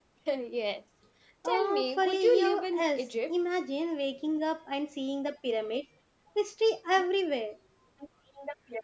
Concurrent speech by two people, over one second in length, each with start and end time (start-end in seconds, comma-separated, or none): 1.4-3.3